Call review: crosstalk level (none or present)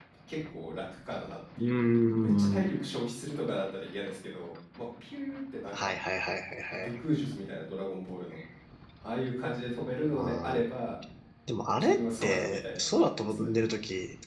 present